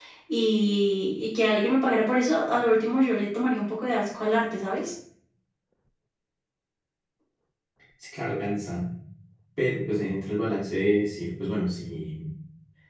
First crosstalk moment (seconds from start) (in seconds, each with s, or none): none